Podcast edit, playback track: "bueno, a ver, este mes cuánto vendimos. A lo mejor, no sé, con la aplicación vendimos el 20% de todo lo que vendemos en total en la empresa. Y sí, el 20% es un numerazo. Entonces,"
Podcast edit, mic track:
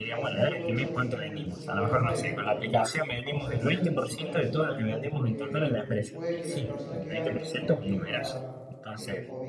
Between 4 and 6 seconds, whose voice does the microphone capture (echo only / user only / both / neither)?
both